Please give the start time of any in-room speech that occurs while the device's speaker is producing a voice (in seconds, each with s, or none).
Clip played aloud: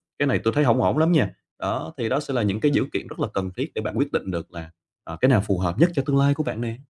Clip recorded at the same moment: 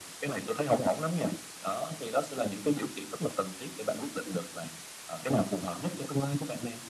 none